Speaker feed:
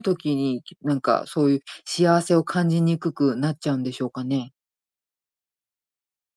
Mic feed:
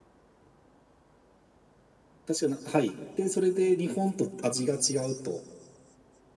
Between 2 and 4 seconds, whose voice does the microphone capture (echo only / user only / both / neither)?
user only